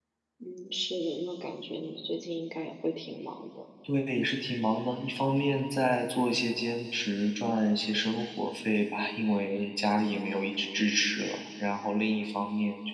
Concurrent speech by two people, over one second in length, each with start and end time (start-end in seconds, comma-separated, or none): none